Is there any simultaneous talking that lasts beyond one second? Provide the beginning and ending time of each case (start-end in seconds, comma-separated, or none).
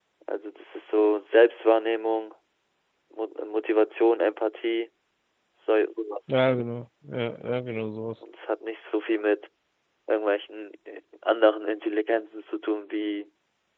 none